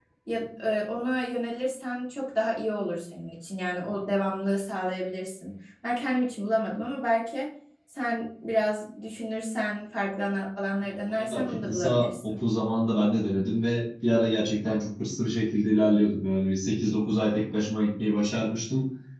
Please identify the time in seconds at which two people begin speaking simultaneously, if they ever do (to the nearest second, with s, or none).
11 s